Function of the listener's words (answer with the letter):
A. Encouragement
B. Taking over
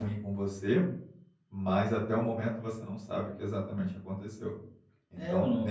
B